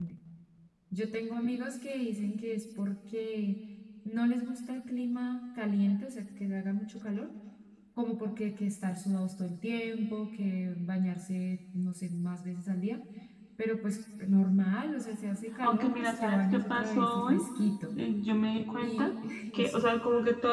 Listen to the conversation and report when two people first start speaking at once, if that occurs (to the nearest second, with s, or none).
16 s